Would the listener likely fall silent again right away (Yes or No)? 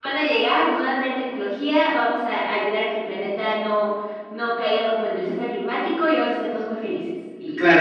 No